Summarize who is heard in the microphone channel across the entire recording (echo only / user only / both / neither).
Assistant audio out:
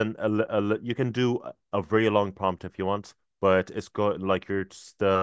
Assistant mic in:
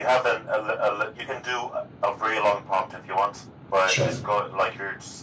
both